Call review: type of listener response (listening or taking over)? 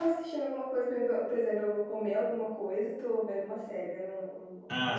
taking over